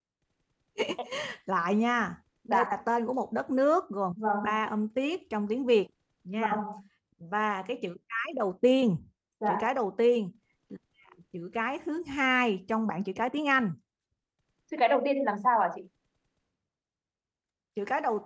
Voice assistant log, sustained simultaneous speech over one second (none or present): none